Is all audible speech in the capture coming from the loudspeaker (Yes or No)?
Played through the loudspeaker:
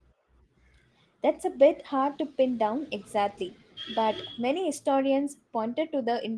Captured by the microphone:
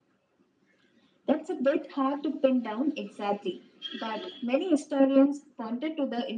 Yes